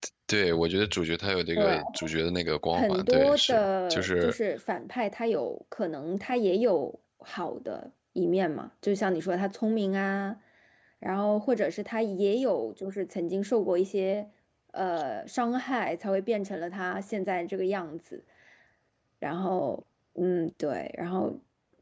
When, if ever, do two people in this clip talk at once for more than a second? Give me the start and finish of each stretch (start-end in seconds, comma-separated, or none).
2.7-4.3